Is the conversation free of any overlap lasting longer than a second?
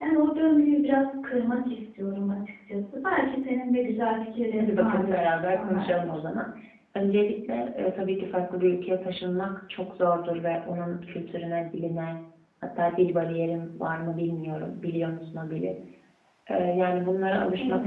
No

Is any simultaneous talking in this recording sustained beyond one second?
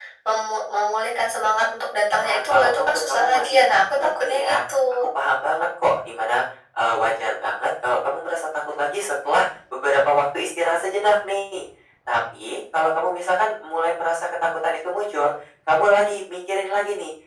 Yes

